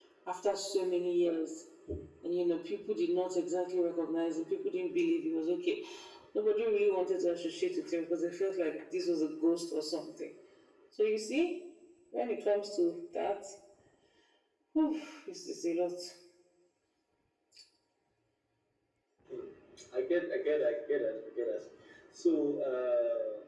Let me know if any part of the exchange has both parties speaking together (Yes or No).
No